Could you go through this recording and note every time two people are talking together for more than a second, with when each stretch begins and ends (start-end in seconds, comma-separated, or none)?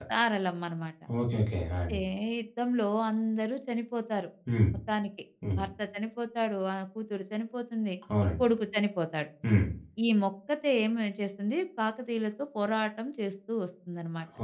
none